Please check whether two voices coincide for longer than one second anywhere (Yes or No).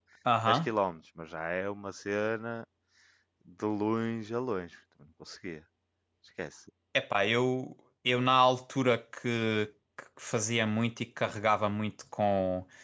No